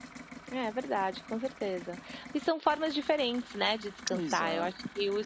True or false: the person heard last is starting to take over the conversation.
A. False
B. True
A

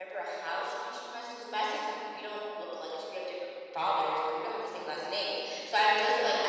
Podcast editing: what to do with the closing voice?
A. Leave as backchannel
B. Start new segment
A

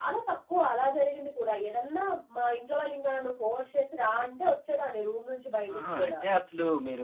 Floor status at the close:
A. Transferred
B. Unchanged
A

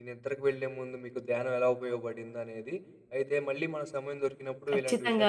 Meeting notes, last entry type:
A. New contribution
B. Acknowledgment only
B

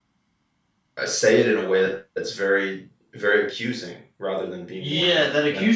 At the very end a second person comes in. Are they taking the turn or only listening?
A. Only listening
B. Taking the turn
B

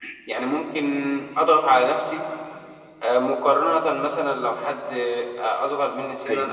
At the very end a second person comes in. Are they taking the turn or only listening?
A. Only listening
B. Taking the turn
A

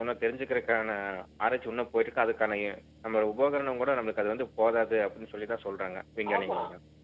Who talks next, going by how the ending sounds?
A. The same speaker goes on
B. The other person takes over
B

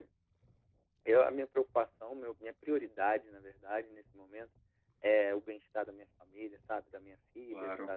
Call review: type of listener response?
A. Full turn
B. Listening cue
B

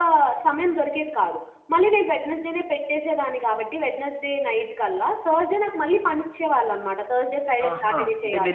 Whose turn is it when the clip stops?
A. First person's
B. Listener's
B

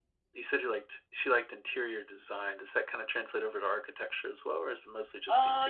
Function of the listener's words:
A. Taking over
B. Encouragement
A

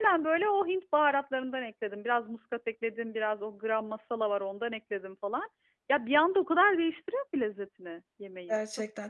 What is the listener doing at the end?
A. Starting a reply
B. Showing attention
A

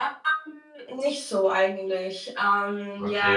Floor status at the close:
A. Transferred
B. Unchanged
A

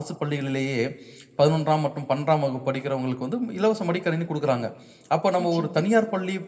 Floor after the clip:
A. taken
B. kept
B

